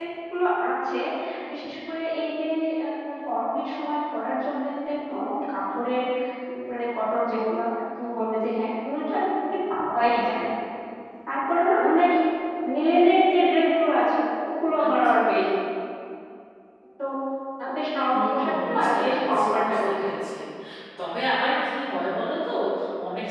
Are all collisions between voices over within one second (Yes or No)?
No